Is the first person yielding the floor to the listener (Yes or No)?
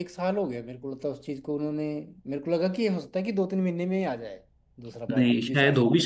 Yes